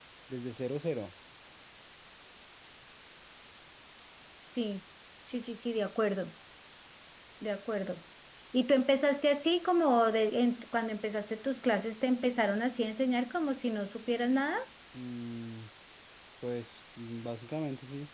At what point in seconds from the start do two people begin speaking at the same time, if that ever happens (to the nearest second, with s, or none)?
none